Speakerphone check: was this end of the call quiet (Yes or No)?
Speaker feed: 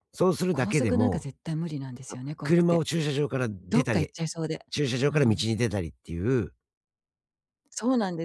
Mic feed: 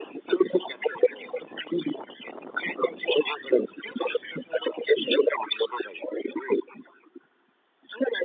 Yes